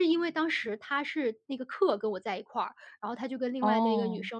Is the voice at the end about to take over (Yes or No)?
No